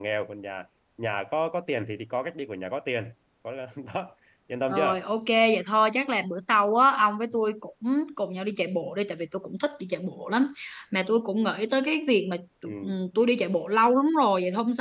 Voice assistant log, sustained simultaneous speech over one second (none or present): none